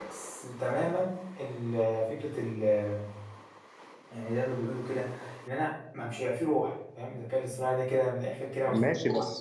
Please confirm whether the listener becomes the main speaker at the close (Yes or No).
Yes